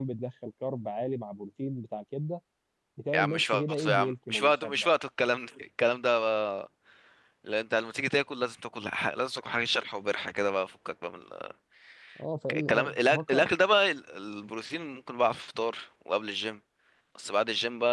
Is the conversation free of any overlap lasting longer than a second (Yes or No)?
No